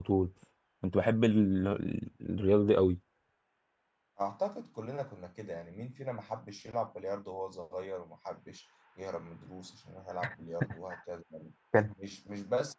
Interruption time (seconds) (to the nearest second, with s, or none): none